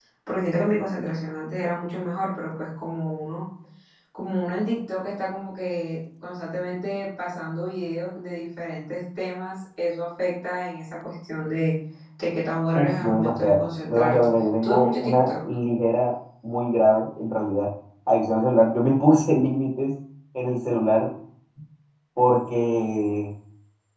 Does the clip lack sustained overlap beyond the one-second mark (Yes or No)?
No